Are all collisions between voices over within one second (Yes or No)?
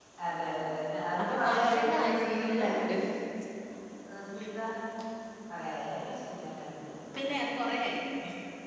No